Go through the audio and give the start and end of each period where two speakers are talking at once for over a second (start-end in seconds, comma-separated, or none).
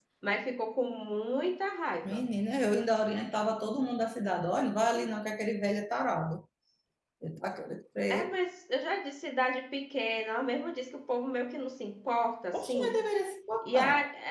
none